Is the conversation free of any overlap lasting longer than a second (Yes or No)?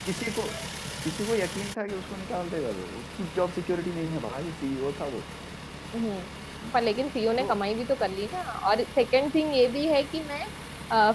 Yes